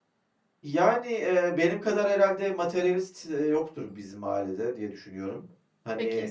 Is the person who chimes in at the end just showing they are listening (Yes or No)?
No